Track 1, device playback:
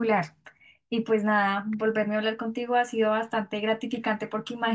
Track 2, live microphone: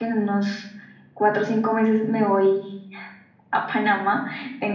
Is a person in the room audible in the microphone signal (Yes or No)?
Yes